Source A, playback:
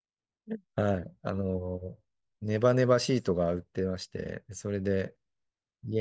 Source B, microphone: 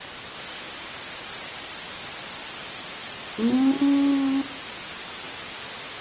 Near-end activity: present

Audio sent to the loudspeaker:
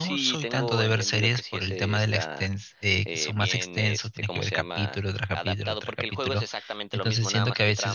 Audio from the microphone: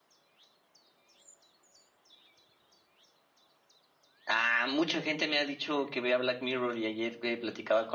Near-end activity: present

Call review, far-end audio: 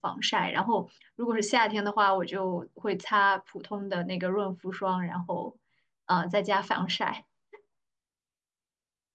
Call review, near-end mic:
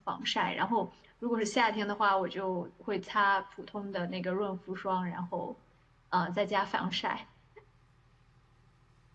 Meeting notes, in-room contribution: none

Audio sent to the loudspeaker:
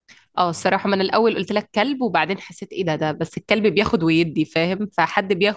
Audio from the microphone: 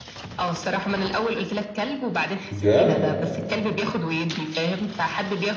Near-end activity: present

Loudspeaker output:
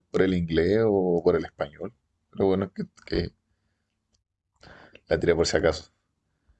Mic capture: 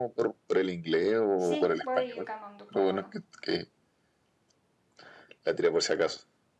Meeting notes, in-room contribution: present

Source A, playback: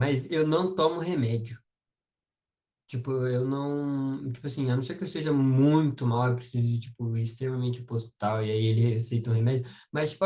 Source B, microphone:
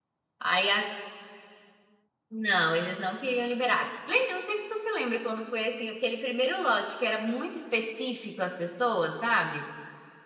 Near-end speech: present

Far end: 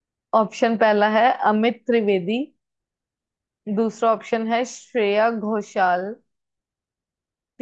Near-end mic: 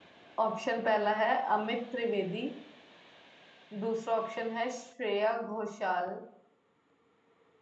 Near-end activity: none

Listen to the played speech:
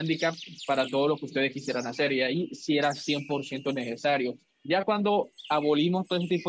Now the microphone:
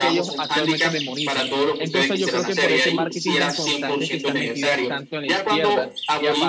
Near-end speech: present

